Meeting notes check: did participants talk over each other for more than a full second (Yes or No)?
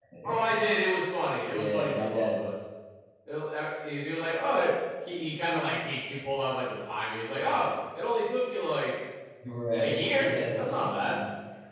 Yes